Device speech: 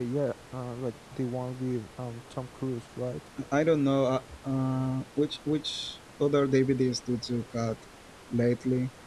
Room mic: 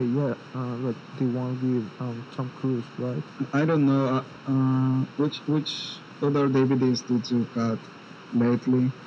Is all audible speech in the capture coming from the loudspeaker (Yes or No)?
Yes